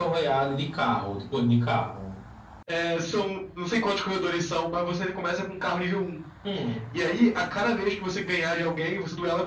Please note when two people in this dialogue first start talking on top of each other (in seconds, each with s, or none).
none